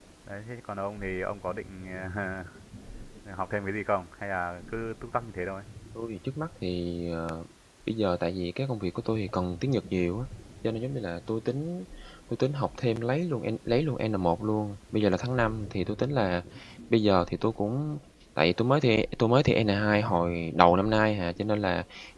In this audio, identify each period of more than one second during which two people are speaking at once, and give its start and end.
none

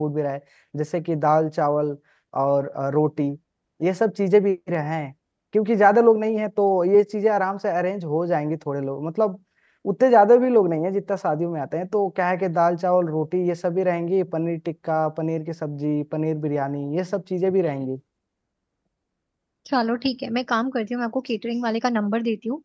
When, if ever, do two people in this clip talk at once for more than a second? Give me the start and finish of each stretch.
none

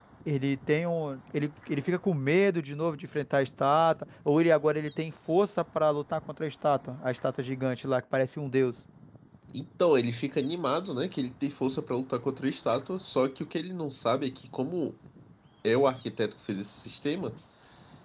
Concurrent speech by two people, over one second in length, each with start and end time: none

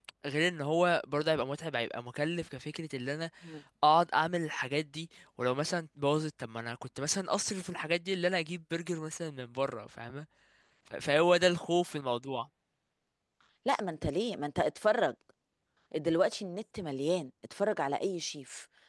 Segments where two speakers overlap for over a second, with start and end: none

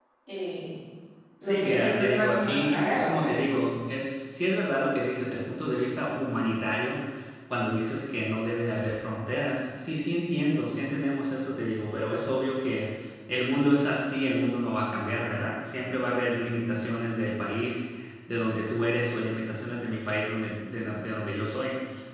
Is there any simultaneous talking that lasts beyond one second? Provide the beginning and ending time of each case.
1.4-3.3

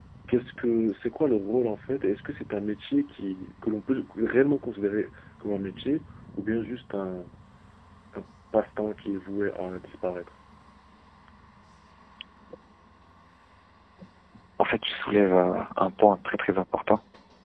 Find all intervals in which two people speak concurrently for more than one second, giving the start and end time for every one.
none

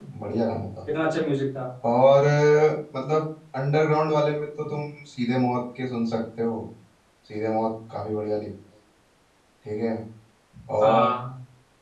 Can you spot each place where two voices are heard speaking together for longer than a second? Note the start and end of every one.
none

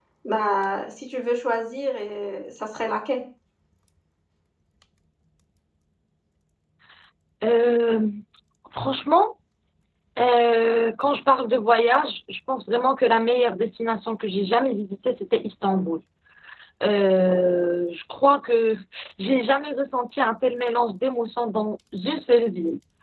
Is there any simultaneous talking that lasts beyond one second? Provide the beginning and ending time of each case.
none

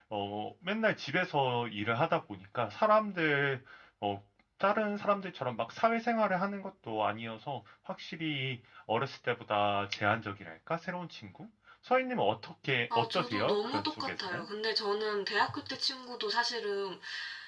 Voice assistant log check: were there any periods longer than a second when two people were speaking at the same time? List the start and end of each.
13.0-14.4

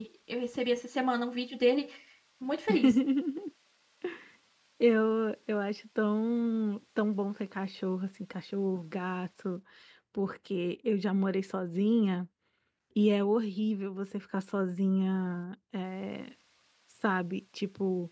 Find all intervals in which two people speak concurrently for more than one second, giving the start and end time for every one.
none

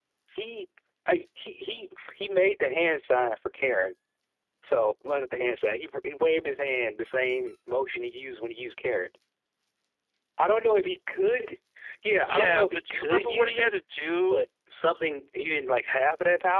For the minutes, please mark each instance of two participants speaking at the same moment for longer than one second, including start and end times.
12.3-13.7

